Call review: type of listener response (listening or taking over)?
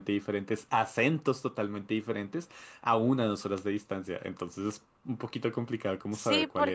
taking over